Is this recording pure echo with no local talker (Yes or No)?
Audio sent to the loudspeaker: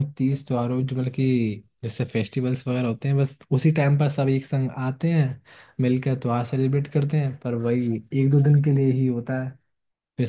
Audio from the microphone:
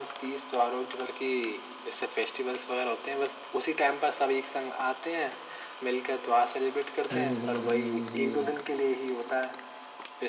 No